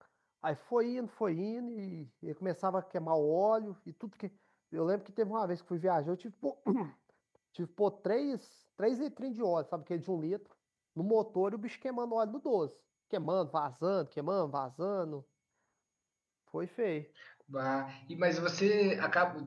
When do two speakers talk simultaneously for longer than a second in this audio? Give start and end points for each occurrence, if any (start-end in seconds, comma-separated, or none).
none